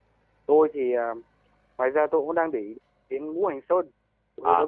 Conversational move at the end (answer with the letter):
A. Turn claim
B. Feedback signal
A